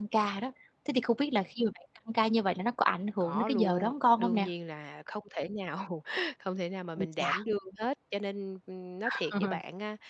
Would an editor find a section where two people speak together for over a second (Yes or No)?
Yes